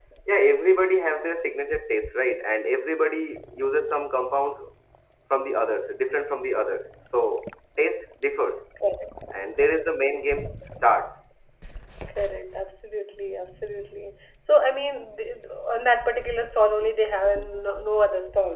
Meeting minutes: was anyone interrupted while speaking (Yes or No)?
No